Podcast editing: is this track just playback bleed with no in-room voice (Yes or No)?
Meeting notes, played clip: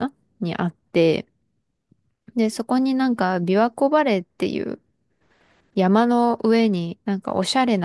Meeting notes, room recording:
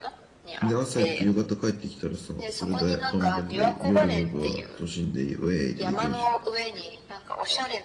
No